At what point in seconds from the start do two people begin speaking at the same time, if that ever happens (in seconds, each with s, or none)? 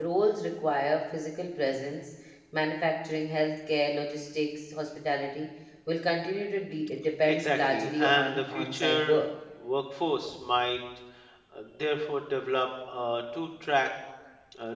7.3 s